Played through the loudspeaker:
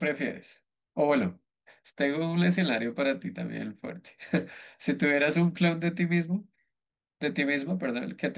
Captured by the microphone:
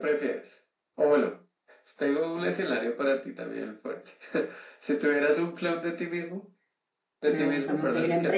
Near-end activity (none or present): present